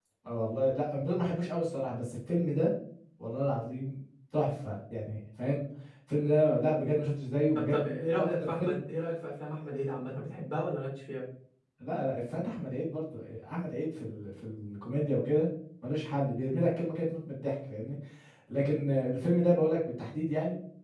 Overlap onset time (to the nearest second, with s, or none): 8 s